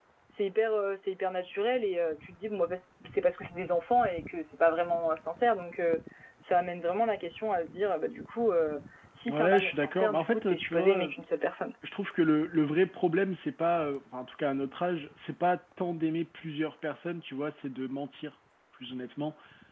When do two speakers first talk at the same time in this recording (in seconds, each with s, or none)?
9.3 s